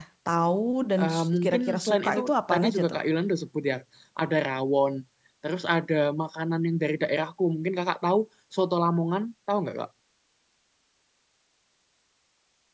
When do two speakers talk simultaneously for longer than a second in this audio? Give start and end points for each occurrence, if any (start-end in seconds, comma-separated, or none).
1.0-3.0